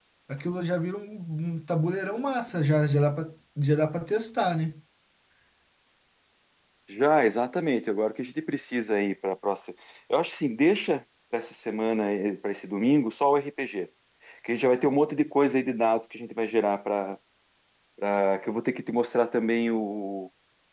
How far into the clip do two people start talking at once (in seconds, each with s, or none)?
none